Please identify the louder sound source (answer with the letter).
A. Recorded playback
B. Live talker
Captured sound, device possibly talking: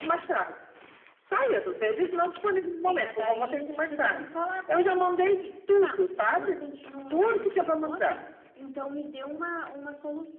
A